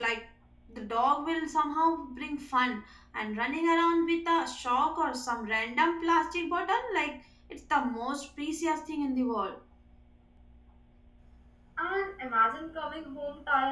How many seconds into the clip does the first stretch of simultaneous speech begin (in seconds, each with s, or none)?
none